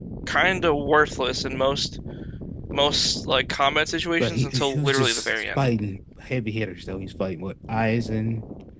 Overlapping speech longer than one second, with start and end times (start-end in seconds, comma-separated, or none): 4.2-5.7